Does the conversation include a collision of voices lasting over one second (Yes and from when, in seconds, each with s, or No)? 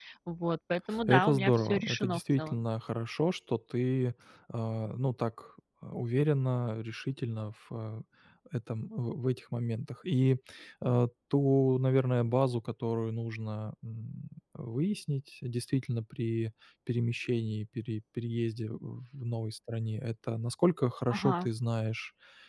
Yes, from 1.1 s